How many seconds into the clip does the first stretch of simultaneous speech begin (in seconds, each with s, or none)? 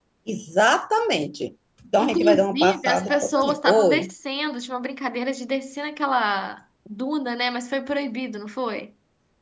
2.0 s